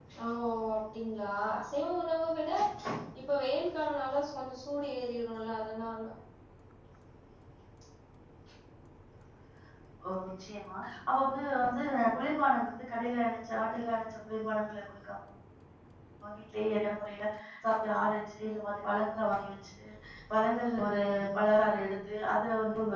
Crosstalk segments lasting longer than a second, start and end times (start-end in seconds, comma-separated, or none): none